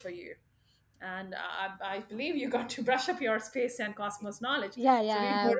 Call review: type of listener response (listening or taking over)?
taking over